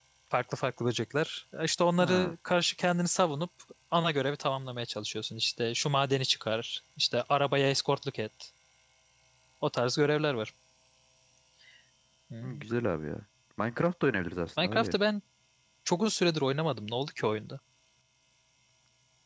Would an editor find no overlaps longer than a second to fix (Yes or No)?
Yes